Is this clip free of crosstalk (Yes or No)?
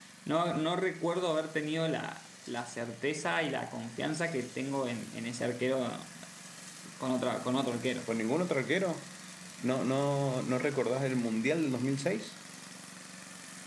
Yes